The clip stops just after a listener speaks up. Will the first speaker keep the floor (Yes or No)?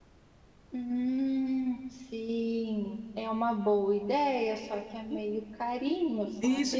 No